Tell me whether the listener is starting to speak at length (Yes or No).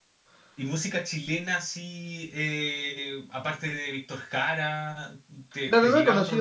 Yes